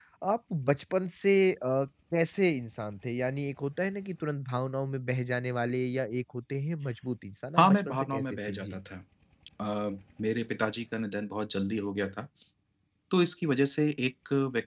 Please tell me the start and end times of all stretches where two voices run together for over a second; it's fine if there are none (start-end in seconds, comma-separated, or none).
7.6-8.8